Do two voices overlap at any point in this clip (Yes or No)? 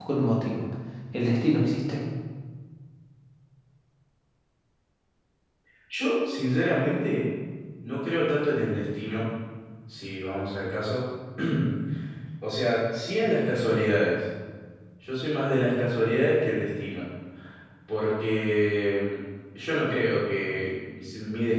No